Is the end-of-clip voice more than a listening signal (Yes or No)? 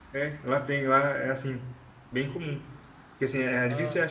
No